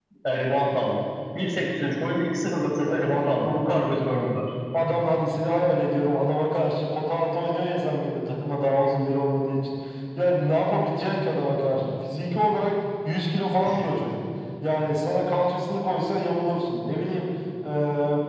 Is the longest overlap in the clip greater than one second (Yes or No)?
Yes